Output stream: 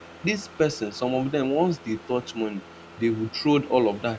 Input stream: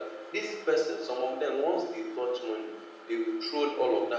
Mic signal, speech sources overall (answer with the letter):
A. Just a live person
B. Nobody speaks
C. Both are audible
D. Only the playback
D